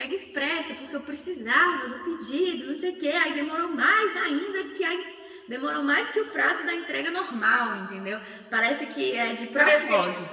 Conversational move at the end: taking over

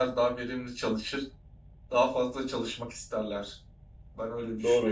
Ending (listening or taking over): taking over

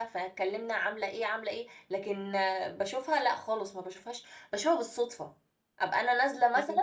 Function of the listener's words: listening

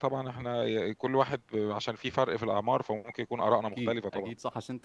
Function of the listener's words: taking over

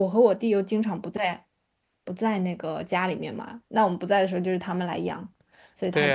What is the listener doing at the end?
taking over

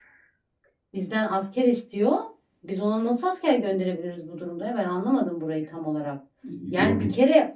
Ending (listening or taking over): listening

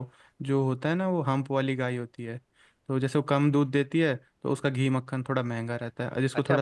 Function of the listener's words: taking over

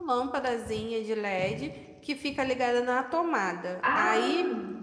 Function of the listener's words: listening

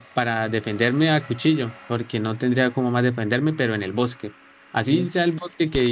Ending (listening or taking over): listening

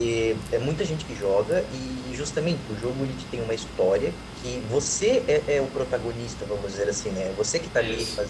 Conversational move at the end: listening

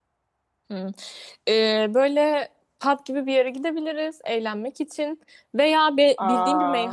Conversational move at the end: listening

